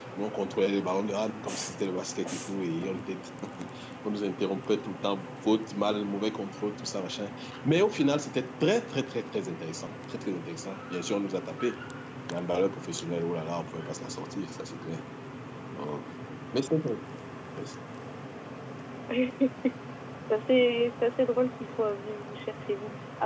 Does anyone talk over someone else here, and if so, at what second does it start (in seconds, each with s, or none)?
none